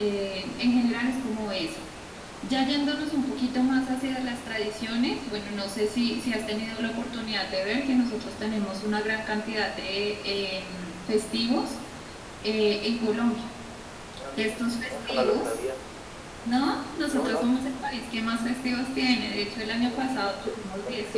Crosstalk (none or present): present